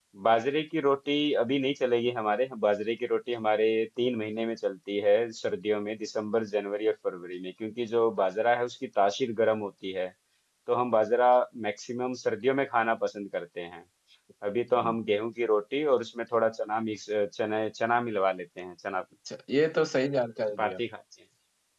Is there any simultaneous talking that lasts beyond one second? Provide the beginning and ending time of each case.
none

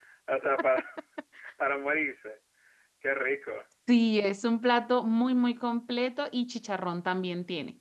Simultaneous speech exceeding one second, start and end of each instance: none

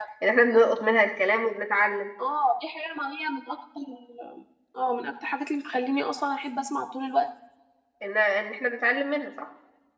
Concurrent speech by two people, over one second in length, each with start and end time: none

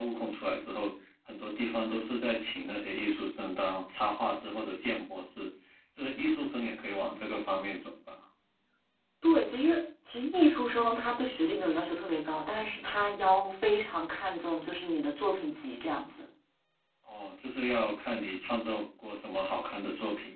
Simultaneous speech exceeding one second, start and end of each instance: none

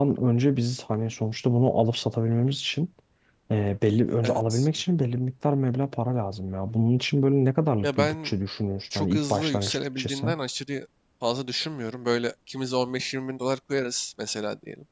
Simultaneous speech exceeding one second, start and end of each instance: 8.9-10.3

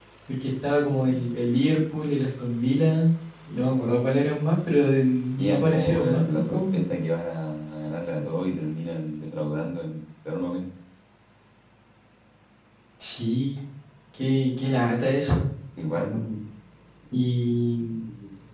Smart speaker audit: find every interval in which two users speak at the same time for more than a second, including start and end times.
5.3-6.8

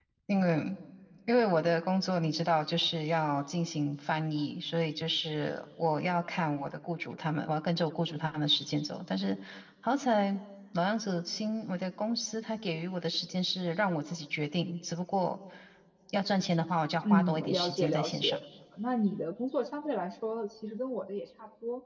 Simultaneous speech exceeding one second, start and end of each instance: 17.0-18.4

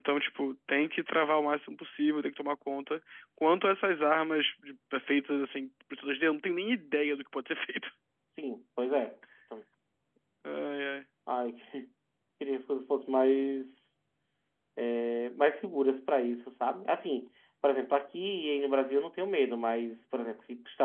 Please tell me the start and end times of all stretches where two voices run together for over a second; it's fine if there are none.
none

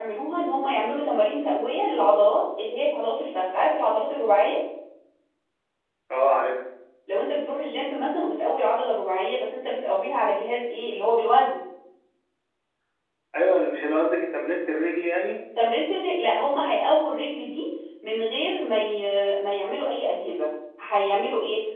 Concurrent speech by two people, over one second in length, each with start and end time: none

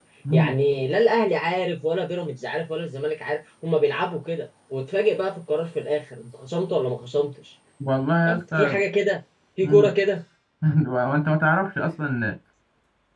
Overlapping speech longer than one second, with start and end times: none

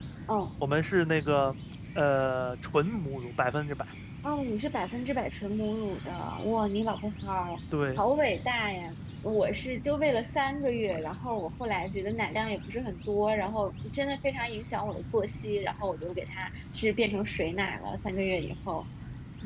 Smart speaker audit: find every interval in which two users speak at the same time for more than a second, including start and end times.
none

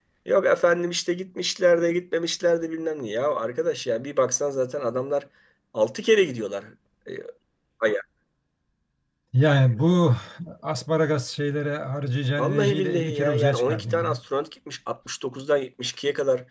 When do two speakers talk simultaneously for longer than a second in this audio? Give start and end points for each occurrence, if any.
12.4-14.2

